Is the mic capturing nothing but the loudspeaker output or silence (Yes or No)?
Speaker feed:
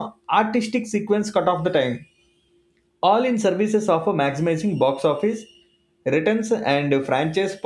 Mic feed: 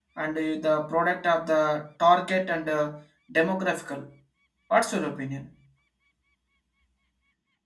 No